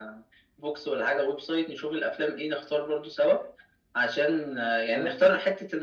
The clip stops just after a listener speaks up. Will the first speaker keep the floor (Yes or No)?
Yes